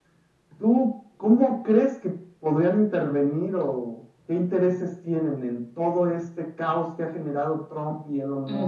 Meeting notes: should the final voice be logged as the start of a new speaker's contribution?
Yes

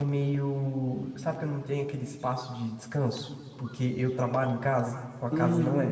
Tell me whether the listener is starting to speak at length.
Yes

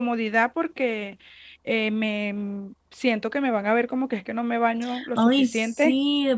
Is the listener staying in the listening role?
No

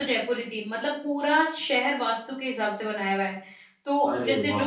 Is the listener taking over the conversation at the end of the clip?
No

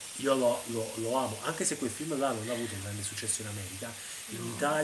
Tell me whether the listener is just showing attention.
Yes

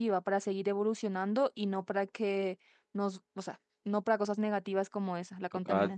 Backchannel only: No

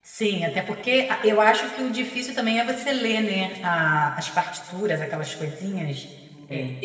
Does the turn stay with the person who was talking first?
Yes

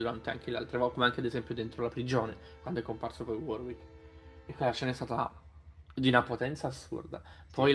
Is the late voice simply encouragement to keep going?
Yes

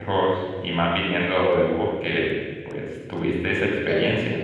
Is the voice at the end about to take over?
Yes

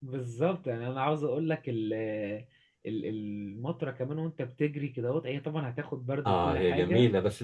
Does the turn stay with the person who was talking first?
No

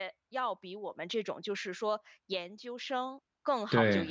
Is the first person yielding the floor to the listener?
No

